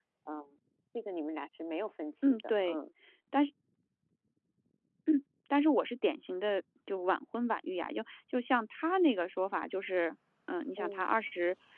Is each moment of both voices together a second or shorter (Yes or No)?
Yes